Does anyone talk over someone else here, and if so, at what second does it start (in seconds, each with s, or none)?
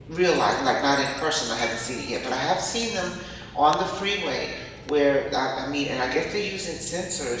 none